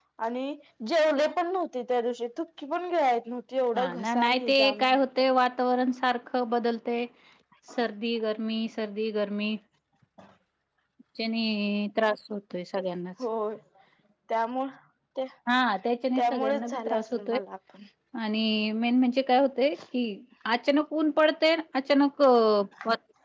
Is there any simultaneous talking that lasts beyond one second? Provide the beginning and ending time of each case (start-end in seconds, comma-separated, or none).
3.8-5.0, 16.2-17.4